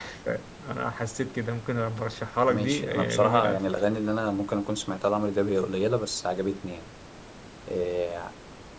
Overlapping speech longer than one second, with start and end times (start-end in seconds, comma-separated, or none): 2.5-3.8